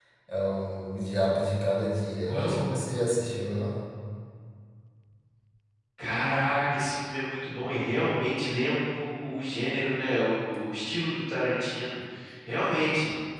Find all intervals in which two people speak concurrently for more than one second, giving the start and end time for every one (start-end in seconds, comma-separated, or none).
none